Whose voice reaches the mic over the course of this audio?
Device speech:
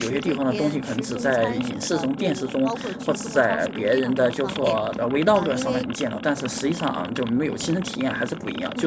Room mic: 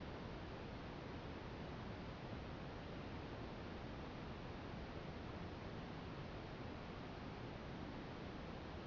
neither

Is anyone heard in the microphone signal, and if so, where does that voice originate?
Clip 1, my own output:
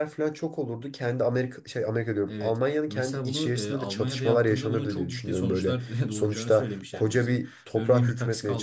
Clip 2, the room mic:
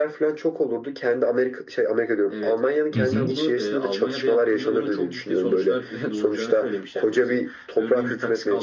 both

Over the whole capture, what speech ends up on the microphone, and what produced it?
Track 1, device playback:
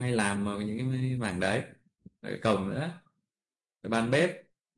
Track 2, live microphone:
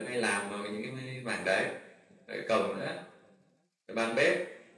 echo only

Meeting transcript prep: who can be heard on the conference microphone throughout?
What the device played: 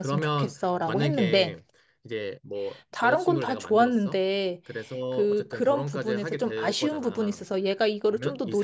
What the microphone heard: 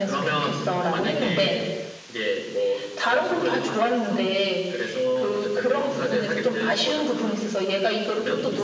echo only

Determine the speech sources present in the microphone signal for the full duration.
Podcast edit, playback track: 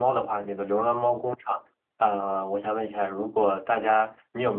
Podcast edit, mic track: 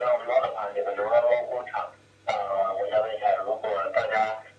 echo only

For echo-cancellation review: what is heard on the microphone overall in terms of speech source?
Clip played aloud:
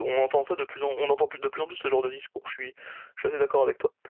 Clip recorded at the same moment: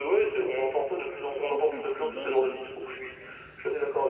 both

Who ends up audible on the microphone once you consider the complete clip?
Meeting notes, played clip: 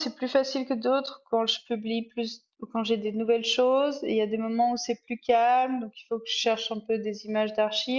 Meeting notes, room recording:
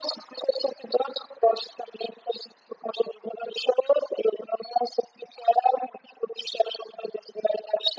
echo only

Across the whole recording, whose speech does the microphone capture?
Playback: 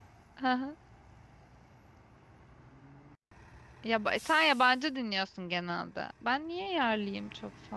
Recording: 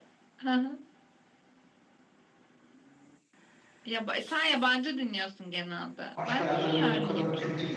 both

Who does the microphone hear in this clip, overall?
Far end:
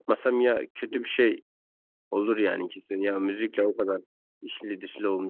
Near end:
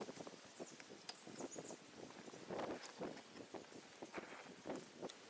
neither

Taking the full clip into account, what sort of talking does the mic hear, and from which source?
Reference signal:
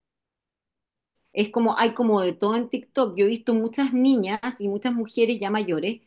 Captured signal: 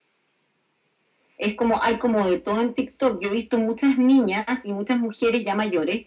echo only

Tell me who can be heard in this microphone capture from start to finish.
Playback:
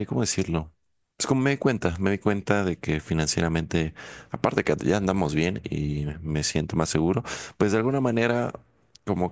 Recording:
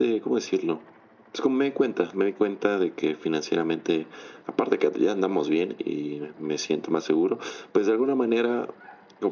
echo only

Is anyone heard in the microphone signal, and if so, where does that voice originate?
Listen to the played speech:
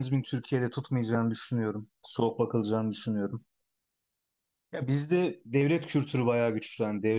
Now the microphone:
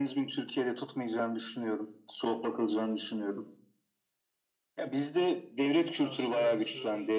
both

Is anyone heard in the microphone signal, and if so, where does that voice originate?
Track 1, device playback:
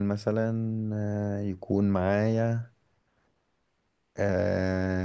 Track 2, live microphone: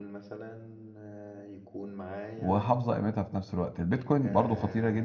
both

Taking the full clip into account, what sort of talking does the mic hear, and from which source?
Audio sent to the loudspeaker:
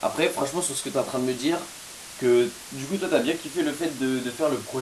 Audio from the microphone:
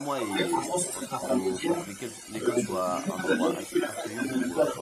both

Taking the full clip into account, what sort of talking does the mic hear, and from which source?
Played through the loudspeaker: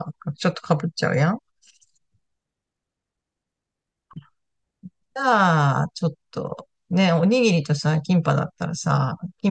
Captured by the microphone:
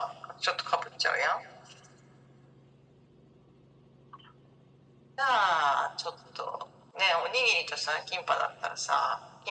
echo only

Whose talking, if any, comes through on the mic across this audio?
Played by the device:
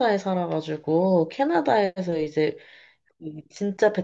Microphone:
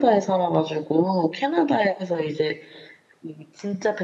echo only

